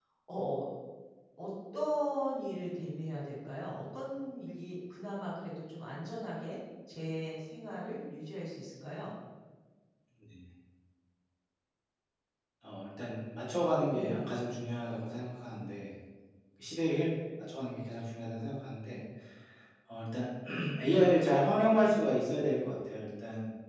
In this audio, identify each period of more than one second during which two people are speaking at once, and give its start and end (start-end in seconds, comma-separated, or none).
none